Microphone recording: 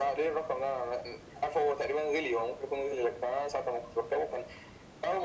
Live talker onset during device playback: none

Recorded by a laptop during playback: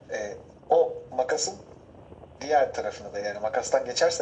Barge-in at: none

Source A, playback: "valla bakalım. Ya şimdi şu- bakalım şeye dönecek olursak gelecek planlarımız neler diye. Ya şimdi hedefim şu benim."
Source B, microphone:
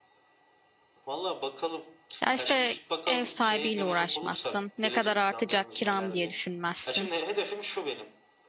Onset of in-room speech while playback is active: 2 s

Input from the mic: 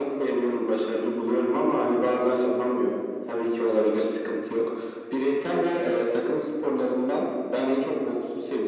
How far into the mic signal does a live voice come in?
none

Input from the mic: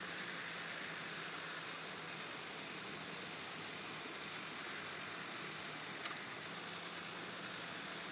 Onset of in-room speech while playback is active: none

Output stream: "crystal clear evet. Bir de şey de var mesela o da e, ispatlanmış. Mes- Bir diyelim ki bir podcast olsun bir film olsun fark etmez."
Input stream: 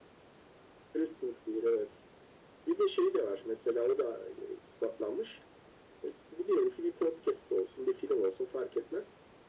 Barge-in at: none

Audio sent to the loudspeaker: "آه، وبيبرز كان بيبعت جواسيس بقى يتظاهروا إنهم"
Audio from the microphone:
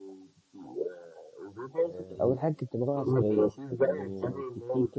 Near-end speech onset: 2 s

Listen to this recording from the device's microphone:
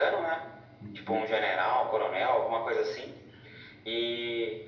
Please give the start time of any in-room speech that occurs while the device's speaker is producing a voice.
1 s

